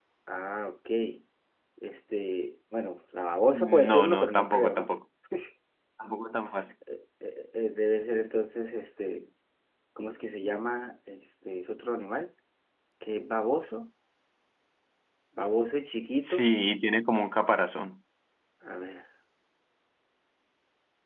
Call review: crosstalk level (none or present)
present